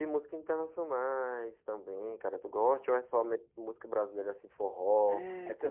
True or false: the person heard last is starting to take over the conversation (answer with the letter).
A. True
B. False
A